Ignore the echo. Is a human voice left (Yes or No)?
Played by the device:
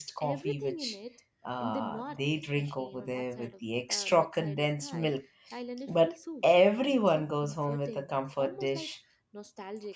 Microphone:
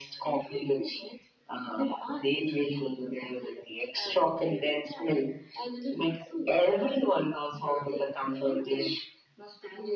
No